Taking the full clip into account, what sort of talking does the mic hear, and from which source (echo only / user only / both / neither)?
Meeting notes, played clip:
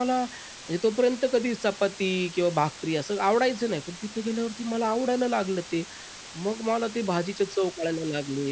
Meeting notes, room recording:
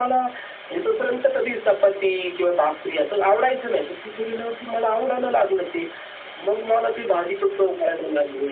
echo only